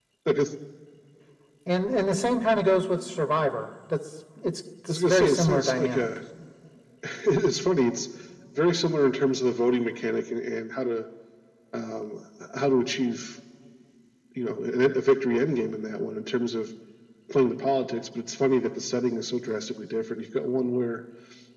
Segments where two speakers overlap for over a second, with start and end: 4.9-6.1

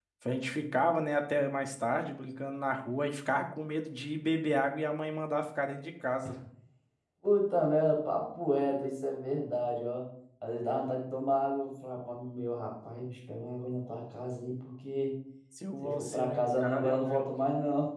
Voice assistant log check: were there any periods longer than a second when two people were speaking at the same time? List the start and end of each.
15.8-17.2

